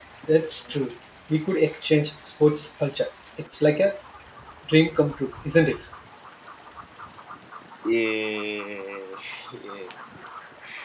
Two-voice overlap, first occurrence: none

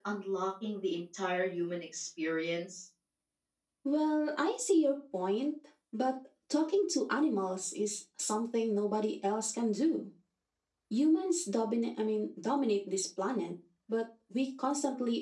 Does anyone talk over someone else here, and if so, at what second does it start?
none

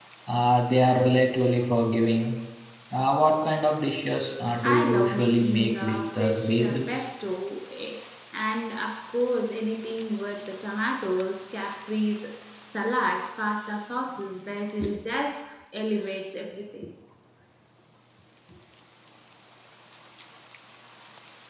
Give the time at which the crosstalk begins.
4.6 s

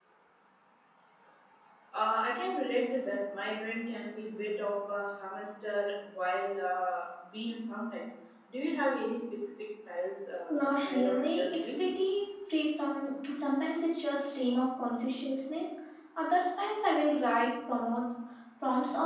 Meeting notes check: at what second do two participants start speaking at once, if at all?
10.5 s

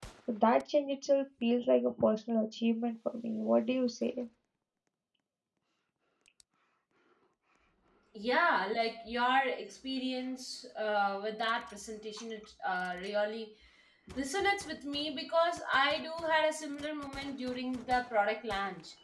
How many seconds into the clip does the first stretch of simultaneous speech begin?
none

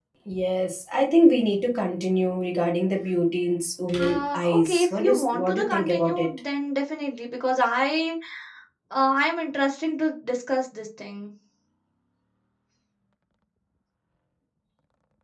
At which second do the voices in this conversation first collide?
4.0 s

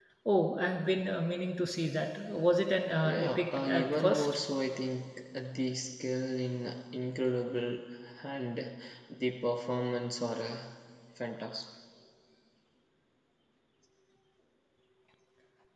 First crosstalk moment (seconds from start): 3.0 s

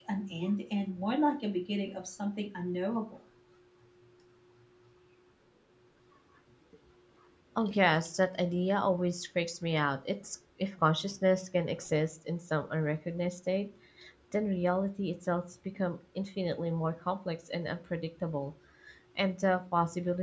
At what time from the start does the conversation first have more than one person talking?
none

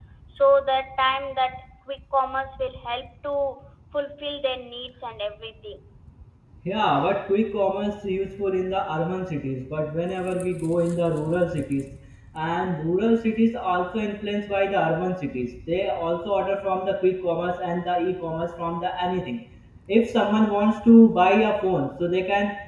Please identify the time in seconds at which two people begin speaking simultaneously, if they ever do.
none

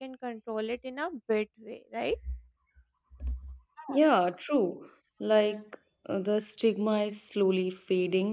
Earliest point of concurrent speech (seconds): none

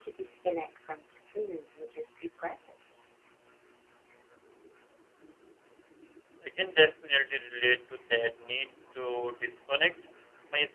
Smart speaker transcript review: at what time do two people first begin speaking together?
none

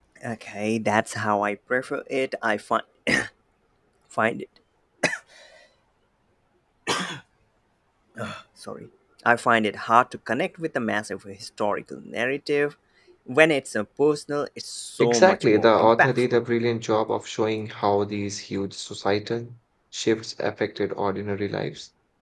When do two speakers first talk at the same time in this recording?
15.0 s

